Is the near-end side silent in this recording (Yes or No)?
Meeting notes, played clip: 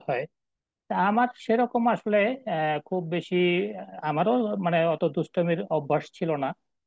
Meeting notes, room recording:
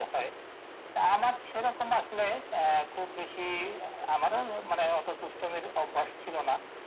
Yes